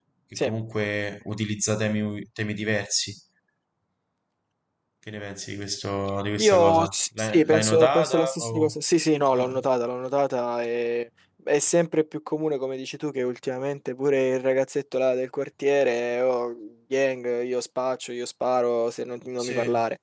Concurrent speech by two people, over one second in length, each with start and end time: 6.4-8.7

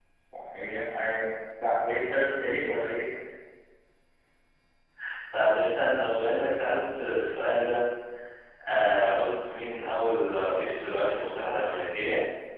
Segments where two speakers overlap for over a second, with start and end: none

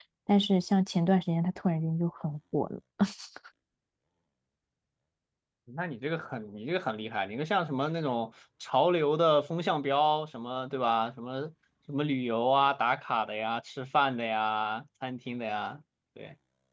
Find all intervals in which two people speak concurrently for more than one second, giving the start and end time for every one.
none

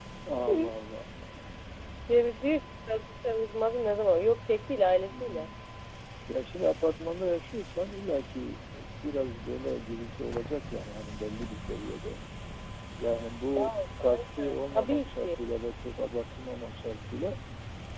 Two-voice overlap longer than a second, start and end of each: 13.6-15.3

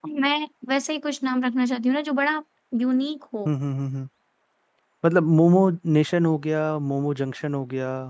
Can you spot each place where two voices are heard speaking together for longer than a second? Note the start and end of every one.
none

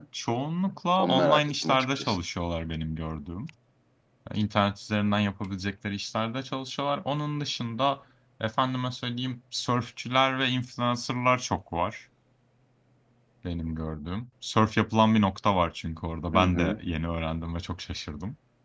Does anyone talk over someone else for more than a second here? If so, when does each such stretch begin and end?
1.0-2.2

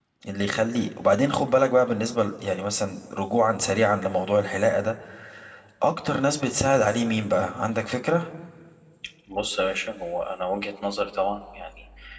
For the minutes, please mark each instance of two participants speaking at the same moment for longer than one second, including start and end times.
none

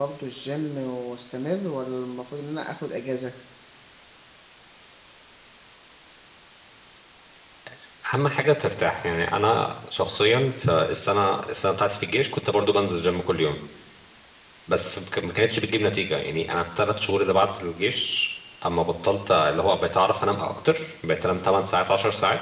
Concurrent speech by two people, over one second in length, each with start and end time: none

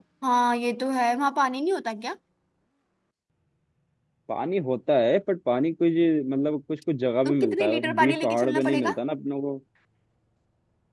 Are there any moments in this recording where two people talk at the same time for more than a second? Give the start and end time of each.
7.2-8.9

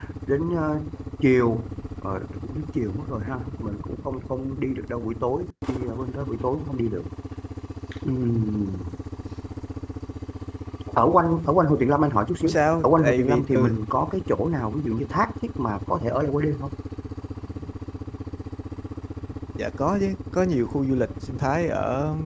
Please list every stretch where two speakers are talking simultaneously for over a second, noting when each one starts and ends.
12.4-13.7

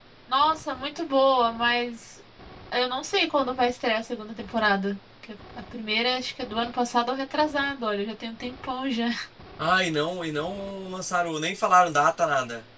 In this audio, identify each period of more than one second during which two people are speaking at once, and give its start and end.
none

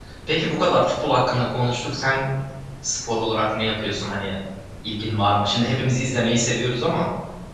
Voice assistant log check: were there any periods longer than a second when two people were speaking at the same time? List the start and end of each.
none

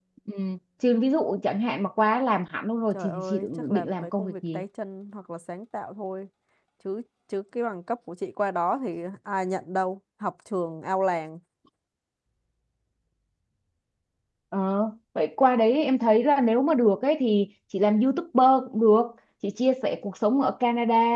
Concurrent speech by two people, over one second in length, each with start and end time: 2.9-4.6

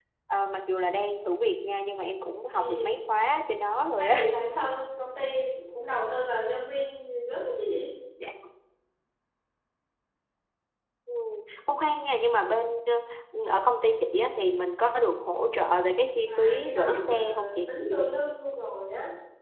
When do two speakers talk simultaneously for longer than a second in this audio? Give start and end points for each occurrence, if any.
16.3-17.7

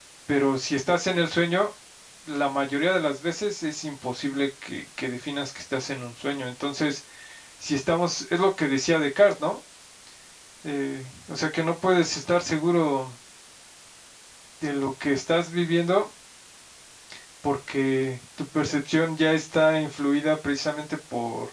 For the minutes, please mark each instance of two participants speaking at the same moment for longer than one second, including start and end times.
none

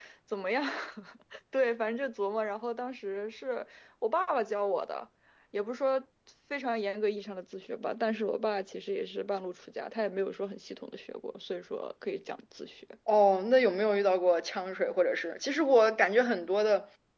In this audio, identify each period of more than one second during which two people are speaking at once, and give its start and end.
none

